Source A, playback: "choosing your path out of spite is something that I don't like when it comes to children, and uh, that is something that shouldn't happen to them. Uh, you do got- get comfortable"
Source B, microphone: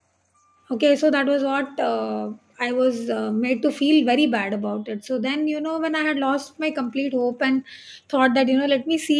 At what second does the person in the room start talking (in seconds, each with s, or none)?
0.7 s